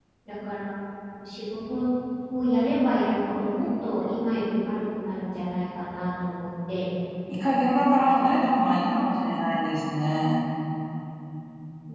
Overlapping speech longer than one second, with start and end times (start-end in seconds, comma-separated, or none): none